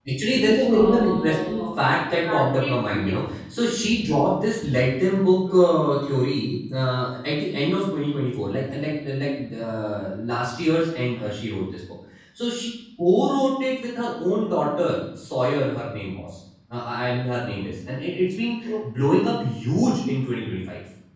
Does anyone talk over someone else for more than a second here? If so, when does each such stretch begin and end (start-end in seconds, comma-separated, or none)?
0.7-3.2